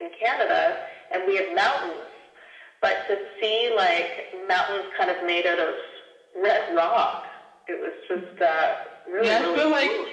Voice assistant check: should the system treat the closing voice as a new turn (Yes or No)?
Yes